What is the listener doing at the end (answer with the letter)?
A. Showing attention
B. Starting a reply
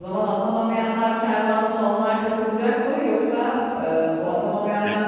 A